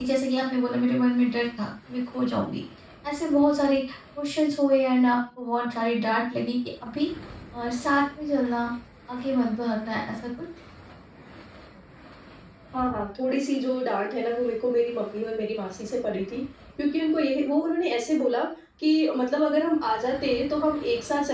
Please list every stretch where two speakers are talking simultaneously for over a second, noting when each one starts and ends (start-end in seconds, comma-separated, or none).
none